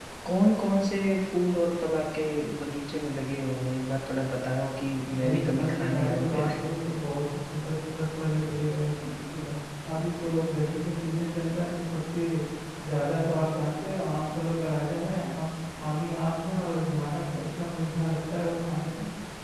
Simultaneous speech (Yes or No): Yes